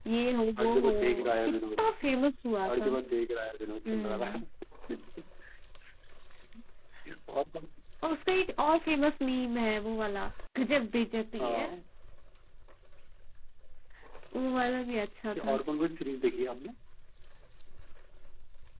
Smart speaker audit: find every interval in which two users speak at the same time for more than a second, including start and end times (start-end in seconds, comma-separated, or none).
0.6-1.8